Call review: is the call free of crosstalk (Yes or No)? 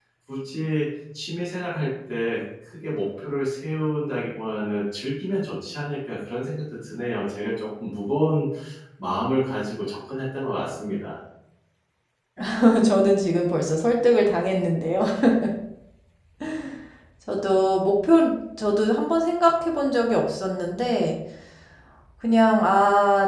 Yes